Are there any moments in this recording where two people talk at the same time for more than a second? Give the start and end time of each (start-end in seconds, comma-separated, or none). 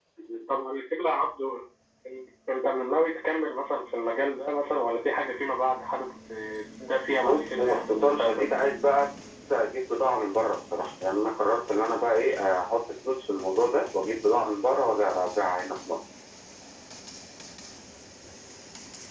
7.2-8.5